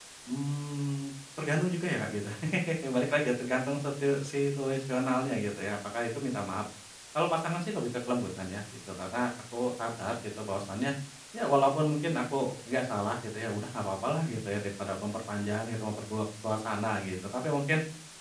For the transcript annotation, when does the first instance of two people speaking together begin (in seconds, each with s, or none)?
none